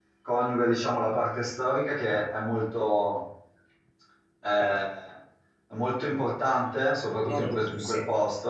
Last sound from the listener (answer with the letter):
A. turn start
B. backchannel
B